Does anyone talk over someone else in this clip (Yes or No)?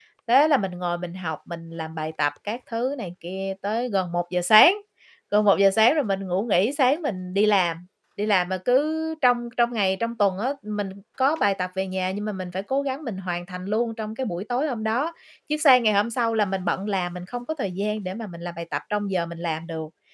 No